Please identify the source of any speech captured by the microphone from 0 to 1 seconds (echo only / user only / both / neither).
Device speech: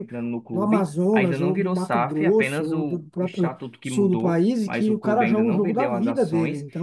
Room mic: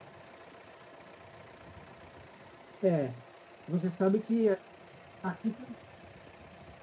neither